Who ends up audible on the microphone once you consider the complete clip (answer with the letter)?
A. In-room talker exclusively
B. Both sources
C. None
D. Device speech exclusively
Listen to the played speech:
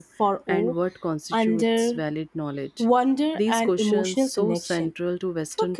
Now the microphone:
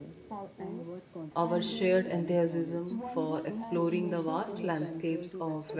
B